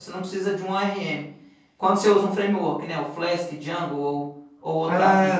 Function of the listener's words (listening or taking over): taking over